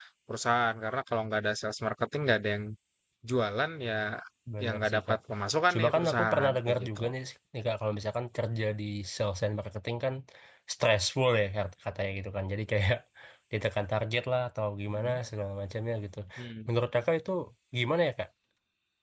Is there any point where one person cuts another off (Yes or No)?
Yes